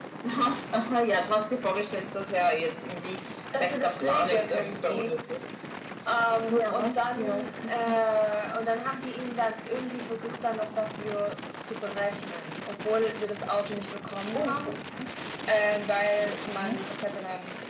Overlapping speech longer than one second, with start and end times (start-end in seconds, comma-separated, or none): 3.6-5.1, 6.5-7.9